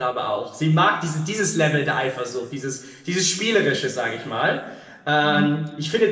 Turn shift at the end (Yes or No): No